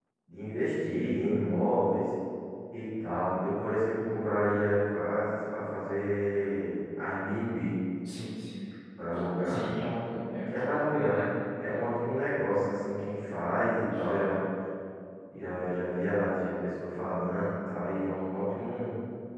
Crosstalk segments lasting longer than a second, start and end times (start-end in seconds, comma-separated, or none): none